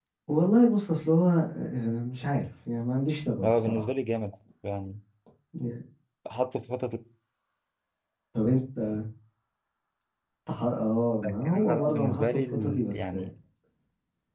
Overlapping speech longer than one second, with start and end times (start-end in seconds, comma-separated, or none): 11.2-13.1